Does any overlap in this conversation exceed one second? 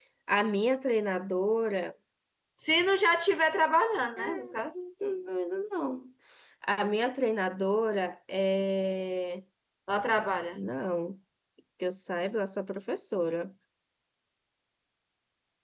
No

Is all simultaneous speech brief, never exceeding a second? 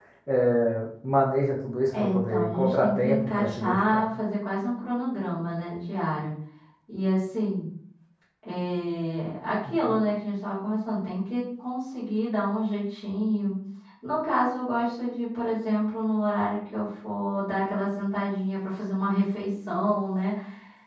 No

